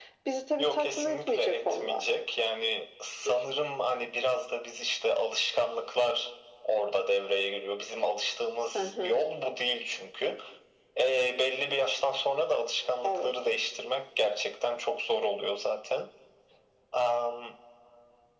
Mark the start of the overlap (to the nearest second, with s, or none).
1 s